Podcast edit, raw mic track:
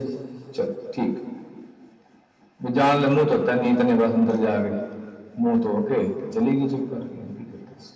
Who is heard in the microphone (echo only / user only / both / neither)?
echo only